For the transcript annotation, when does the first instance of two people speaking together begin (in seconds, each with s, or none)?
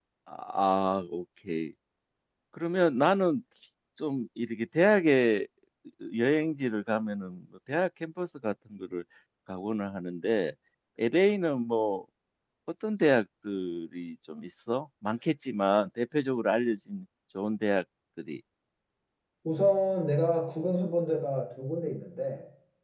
none